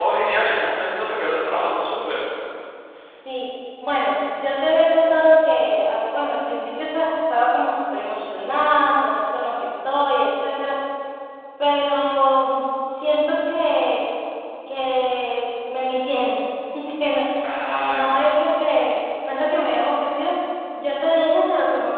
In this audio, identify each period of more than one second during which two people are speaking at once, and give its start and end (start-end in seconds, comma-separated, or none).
none